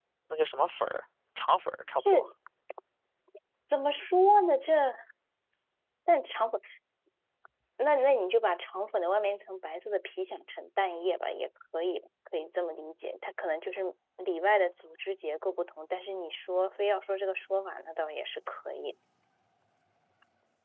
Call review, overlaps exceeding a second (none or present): none